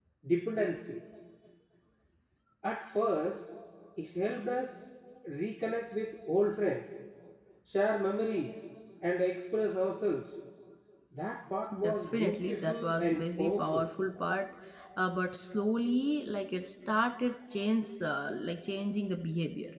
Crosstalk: present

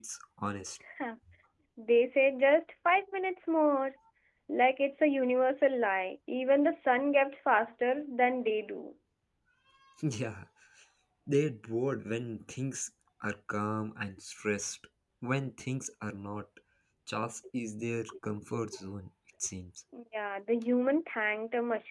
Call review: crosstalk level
none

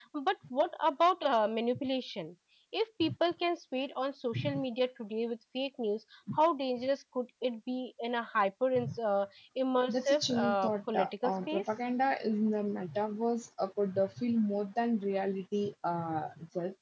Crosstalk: present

